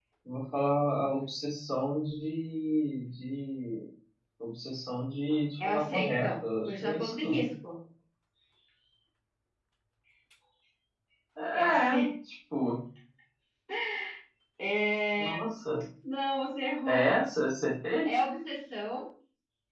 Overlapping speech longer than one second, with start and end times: 5.6-7.5

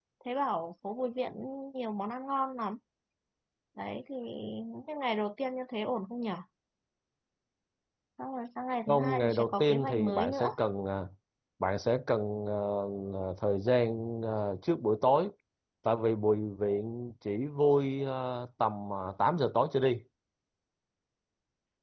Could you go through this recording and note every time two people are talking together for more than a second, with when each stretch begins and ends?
8.9-10.5

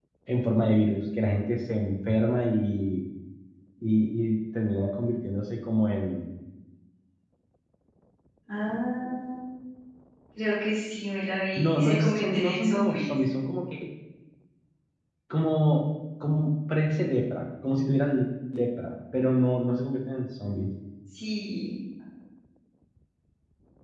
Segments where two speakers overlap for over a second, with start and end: 11.7-13.1

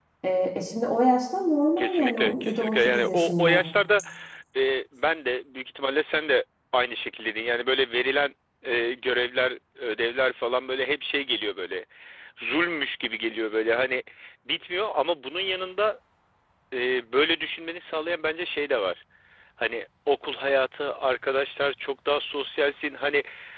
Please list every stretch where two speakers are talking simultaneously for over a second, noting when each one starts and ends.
1.8-3.6

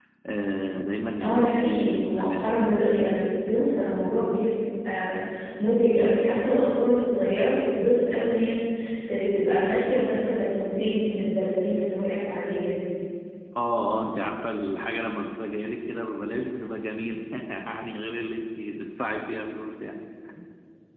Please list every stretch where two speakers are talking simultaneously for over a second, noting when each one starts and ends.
1.2-3.0

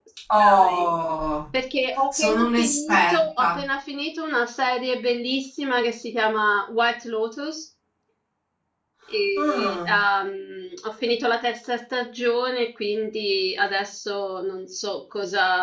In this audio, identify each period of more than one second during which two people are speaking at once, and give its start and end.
2.2-3.6

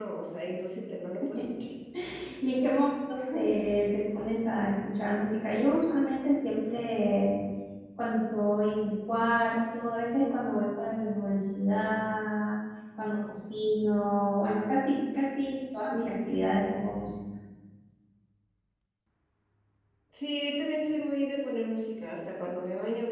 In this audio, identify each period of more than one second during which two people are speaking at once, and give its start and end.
none

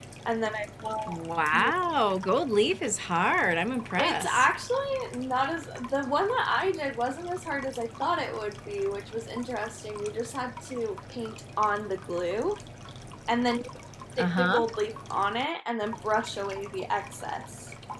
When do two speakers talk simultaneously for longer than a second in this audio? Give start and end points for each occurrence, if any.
none

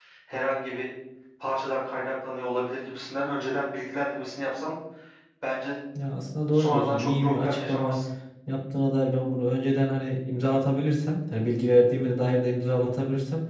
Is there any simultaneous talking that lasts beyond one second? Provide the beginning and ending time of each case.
6.5-8.0

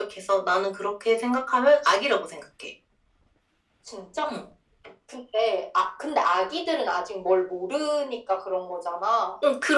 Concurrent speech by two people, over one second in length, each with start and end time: none

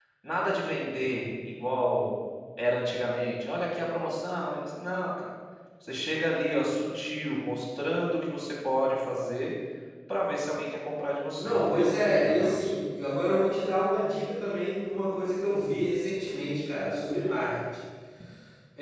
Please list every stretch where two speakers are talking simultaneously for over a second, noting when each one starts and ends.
11.4-12.8

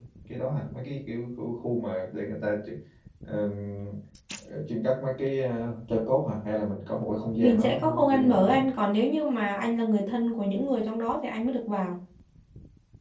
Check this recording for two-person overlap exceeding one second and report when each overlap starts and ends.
7.4-8.6

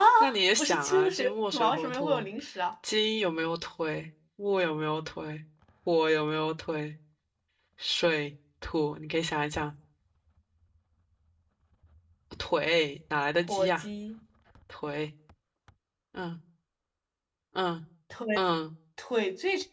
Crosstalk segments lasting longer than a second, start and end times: 0.6-2.2

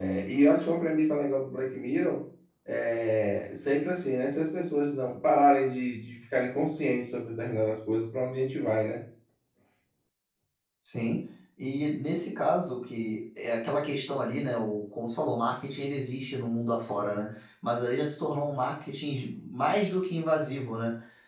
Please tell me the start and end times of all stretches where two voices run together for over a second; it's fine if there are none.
none

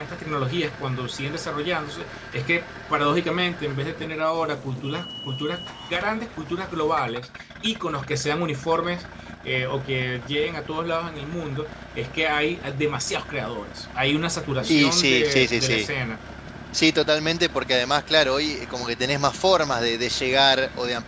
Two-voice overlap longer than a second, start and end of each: 14.6-15.9

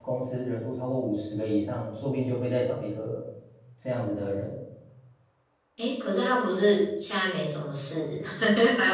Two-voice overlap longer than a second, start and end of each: none

